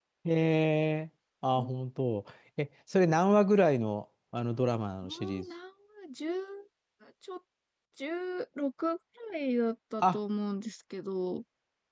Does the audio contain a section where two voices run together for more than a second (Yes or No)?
No